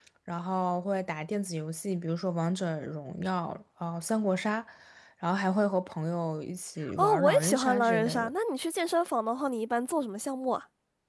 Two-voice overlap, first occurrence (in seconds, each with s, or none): 6.8 s